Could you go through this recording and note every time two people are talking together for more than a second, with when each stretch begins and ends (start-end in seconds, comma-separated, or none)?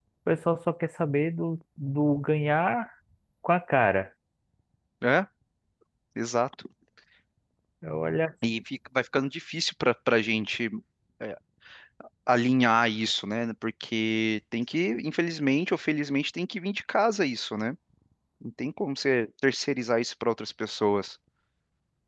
none